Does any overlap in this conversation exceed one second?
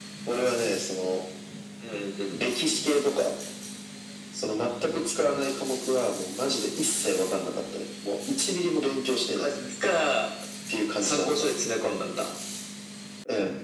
No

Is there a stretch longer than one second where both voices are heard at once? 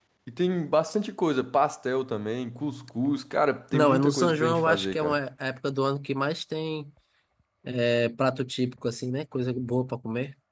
Yes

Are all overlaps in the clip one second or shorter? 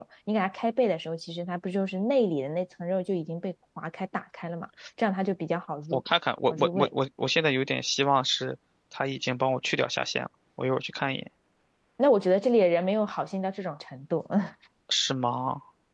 Yes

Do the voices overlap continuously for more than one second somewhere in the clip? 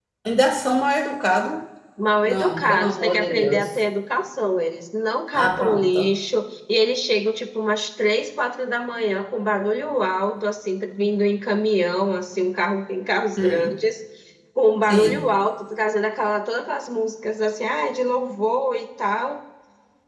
Yes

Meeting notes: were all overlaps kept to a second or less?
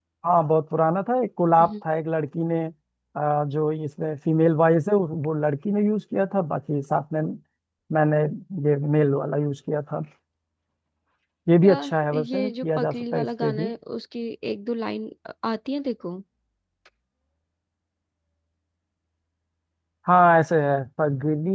No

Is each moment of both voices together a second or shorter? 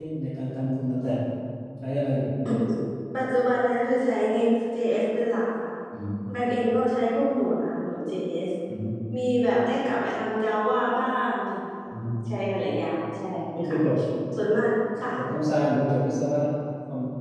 Yes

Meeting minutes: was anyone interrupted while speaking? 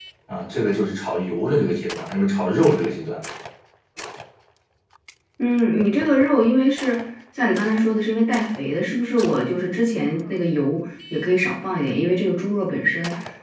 No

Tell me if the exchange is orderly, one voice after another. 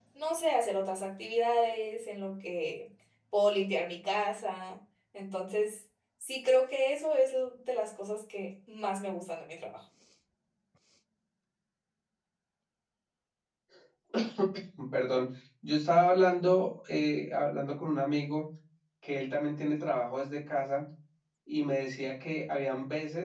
Yes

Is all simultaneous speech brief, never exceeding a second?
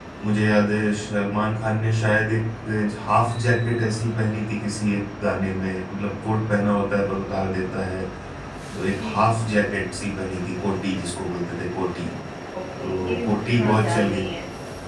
No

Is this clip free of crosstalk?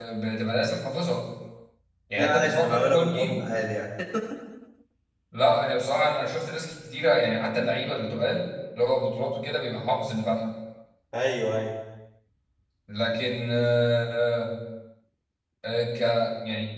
No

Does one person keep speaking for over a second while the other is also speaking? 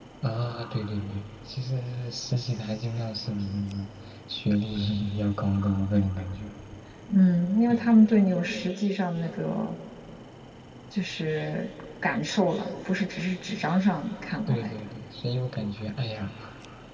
No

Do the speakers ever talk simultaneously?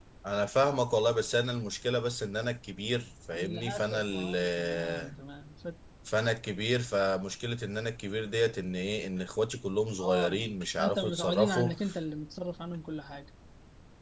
Yes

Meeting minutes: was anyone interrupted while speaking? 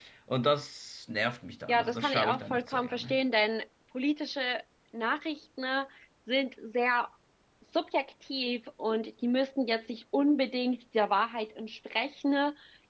Yes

